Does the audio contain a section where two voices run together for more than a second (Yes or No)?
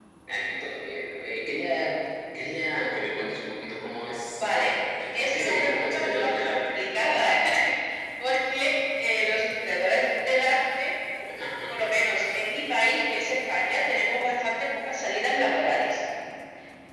Yes